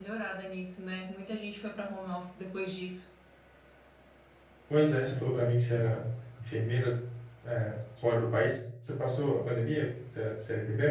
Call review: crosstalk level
none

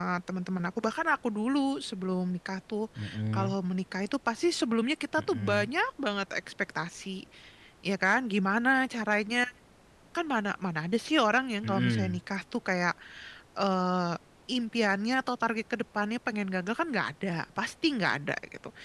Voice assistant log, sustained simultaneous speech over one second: none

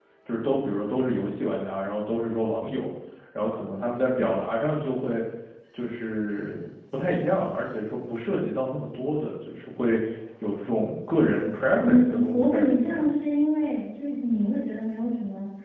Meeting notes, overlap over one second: present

